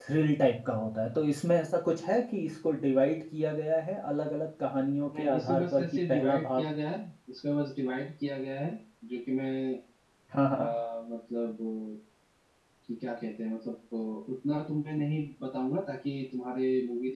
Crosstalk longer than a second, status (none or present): present